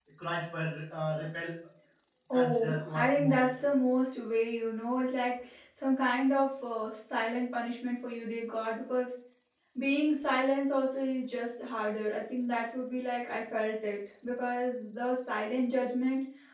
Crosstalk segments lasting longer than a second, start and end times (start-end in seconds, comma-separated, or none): 2.3-3.5